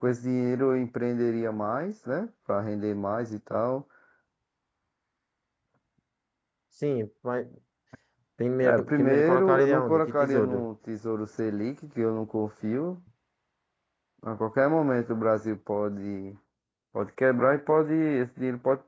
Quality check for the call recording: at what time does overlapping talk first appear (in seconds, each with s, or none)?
8.6 s